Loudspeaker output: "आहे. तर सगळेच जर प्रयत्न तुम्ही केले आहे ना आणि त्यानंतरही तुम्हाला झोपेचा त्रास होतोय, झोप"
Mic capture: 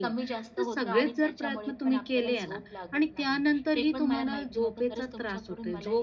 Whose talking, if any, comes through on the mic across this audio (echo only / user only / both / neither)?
both